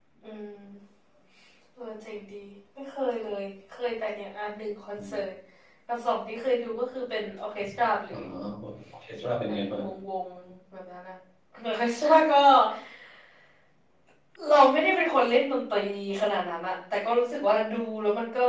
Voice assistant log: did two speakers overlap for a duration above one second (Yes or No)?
No